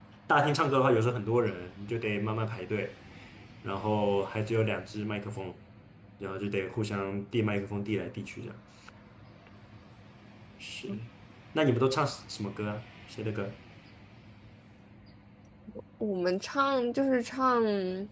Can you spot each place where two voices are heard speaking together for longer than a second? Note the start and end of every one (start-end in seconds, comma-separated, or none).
none